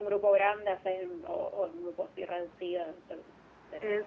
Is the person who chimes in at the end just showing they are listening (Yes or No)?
No